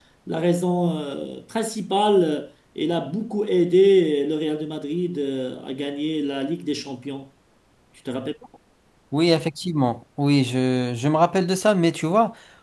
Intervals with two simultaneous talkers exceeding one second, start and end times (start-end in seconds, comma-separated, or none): none